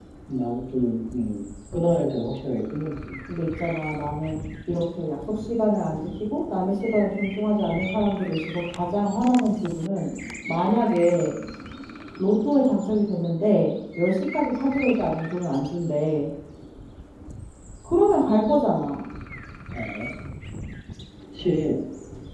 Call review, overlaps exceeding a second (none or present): none